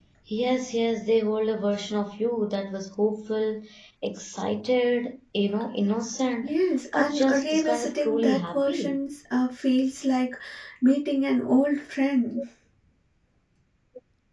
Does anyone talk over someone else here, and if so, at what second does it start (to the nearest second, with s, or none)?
7 s